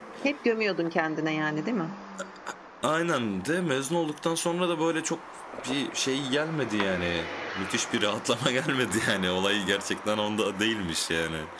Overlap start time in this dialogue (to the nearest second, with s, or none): none